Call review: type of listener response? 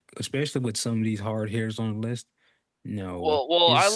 taking over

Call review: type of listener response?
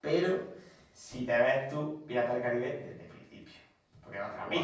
taking over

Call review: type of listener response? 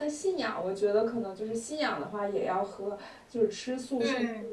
listening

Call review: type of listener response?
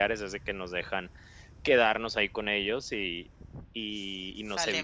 listening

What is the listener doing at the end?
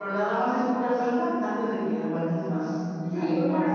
taking over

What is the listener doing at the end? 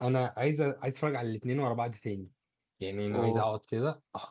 listening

